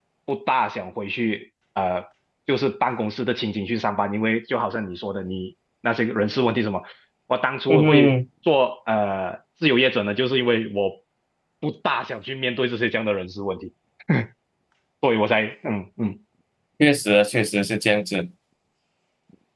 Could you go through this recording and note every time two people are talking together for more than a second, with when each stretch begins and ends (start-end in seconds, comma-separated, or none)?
none